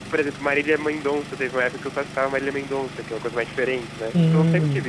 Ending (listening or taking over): taking over